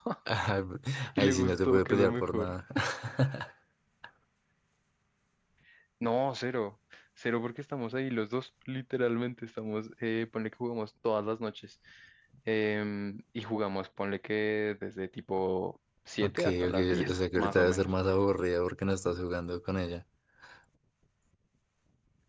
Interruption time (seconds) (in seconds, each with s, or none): 1.1 s